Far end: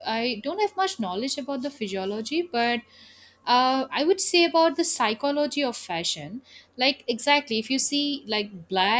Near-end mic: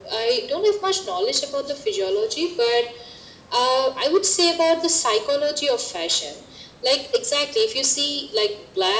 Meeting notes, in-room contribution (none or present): none